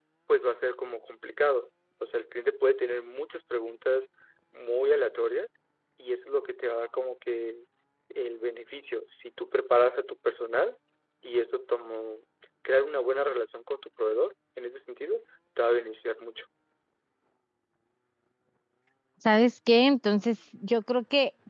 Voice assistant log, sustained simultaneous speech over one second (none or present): none